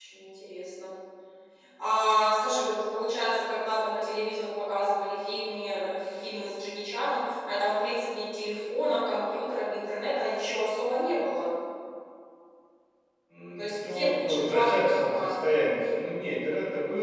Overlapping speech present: Yes, from 13.6 s

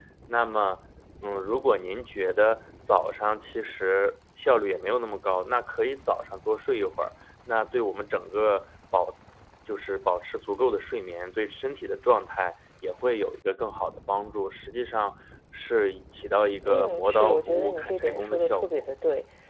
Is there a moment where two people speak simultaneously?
Yes, from 16.6 s

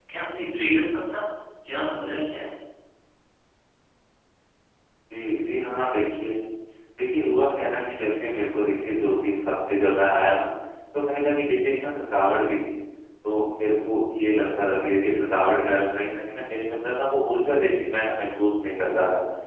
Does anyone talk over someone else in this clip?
No

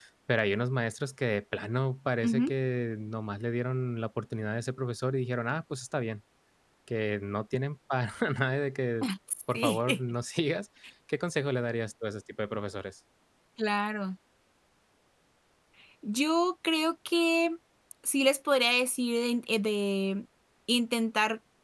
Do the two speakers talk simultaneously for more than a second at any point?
No

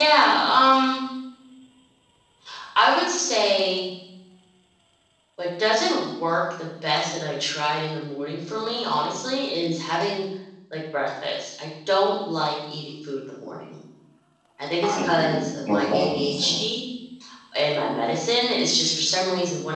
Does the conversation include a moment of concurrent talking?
Yes, from 14.8 s

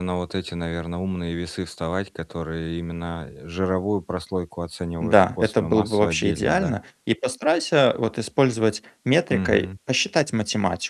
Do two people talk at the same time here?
Yes, from 5.0 s

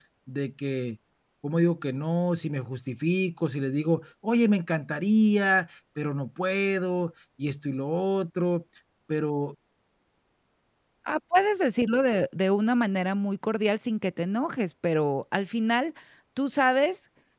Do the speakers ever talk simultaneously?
No

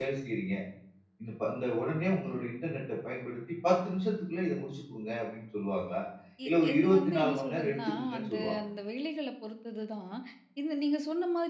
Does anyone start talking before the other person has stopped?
Yes, from 6.5 s

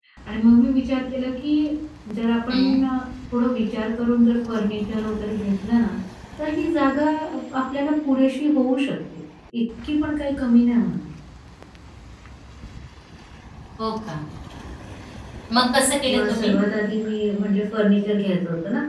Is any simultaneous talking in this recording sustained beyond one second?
No

